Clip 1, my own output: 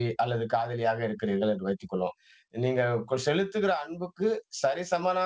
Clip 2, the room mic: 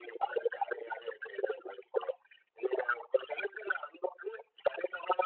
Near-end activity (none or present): none